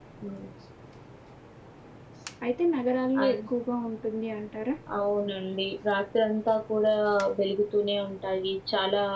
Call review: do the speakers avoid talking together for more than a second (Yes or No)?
Yes